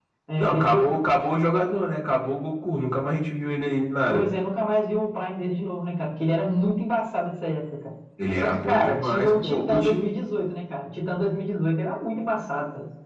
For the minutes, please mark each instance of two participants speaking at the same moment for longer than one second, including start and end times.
8.4-10.1

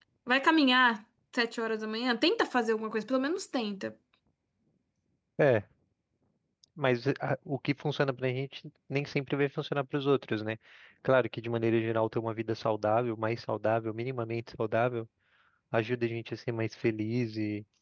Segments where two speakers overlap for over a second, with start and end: none

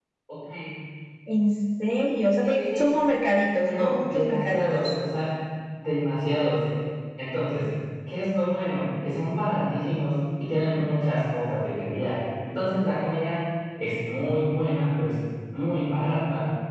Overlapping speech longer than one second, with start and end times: 3.6-4.8

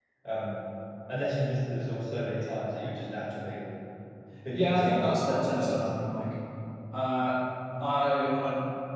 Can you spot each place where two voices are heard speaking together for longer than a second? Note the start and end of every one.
4.5-5.9

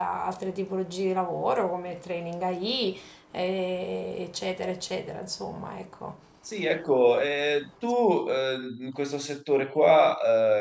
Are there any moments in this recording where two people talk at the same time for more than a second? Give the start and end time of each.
none

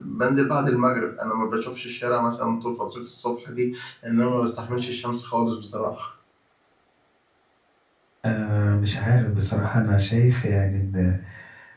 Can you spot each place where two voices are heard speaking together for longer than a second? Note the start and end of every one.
none

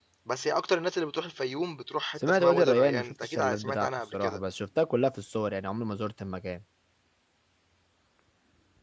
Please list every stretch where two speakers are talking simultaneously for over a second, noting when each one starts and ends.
2.3-4.4

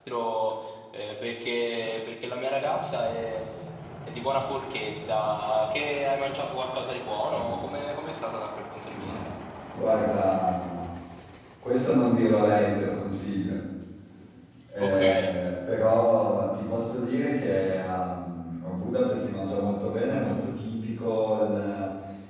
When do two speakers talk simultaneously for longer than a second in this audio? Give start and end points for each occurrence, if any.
none

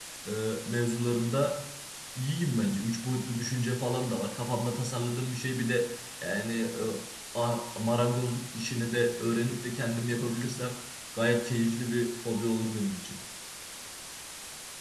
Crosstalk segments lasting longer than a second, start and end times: none

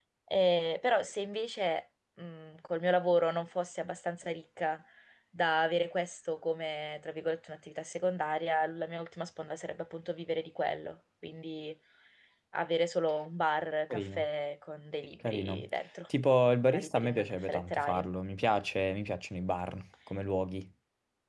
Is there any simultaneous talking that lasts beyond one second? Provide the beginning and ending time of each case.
16.6-18.0

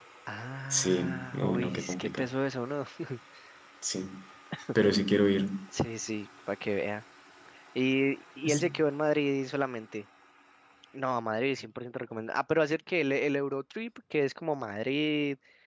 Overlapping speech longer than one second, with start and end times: 0.7-2.3

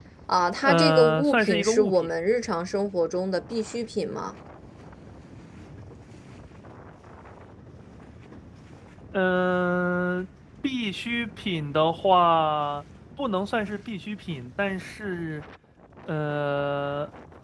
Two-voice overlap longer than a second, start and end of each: 0.6-1.9

